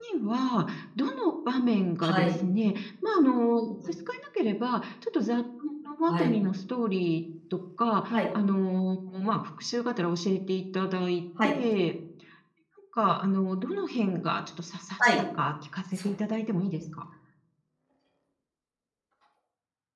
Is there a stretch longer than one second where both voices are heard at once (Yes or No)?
No